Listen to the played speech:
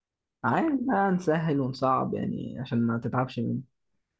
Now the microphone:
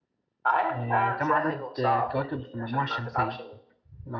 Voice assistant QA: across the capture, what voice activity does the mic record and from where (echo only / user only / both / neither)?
both